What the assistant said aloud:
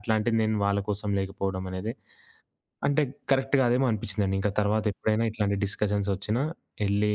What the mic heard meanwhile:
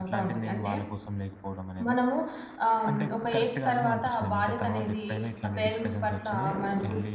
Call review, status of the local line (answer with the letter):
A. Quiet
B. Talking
B